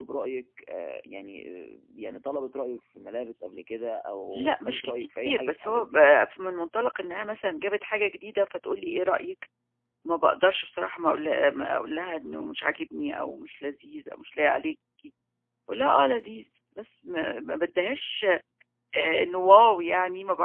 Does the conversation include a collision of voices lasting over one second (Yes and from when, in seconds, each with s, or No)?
Yes, from 4.3 s